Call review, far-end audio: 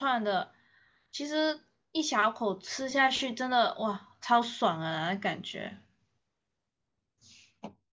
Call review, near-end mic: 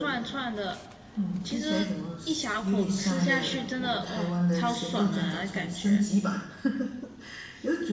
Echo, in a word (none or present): present